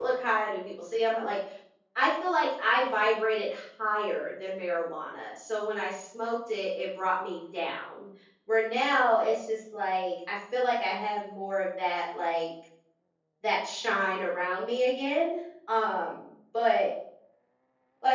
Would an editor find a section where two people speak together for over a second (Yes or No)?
No